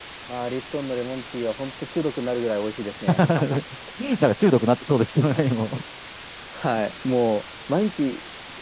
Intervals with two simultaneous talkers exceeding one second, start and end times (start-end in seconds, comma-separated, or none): none